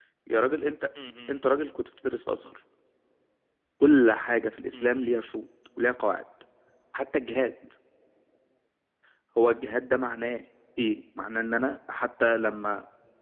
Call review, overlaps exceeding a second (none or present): none